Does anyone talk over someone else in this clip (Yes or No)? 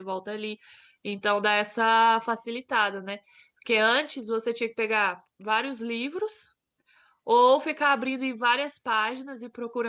No